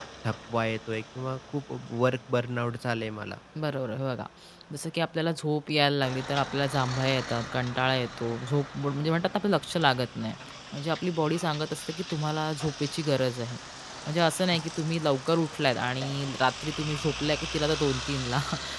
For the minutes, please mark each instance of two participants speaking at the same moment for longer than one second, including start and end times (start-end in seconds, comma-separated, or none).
none